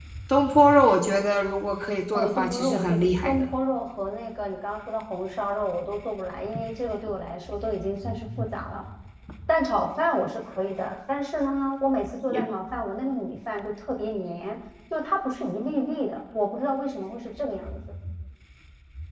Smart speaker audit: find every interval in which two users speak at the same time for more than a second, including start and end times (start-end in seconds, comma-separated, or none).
2.1-3.5